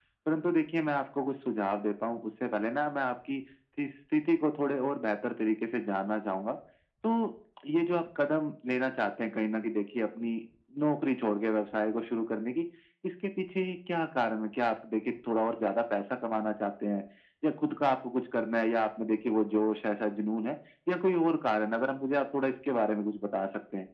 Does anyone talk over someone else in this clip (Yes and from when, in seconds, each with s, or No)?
No